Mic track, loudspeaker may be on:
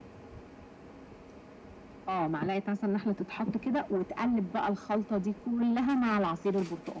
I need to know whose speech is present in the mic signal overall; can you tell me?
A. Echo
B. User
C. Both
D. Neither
A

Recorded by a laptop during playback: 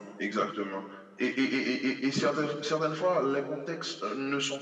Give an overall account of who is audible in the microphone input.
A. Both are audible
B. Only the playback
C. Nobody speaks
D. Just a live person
B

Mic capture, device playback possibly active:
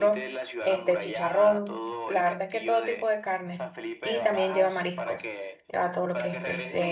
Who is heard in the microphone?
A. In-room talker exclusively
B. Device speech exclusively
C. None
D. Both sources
D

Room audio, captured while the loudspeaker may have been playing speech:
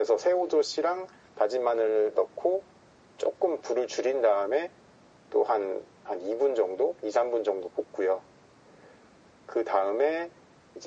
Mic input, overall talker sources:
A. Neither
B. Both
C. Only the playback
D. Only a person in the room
C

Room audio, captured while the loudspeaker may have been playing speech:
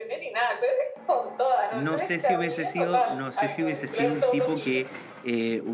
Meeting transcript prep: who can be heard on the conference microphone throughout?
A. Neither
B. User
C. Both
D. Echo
C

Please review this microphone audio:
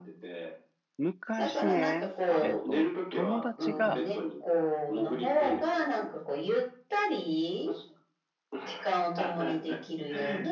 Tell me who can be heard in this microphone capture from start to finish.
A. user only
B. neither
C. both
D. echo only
C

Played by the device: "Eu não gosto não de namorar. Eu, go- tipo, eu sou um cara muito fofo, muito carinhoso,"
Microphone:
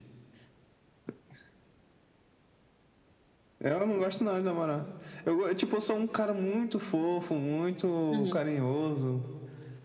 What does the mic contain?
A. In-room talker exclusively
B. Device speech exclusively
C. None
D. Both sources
D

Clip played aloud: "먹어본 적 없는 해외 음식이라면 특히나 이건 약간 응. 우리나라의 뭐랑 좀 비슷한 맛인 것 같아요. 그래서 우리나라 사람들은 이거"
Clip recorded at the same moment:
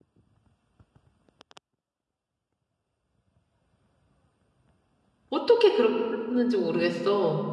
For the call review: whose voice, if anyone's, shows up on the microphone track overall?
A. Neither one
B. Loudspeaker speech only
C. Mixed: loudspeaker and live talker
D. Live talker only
D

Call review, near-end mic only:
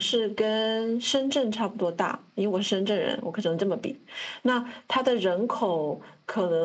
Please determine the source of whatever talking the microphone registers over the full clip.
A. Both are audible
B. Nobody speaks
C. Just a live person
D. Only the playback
D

